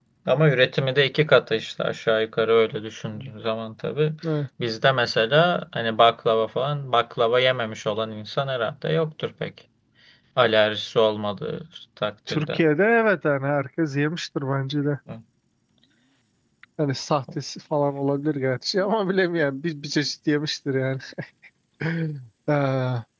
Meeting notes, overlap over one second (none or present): none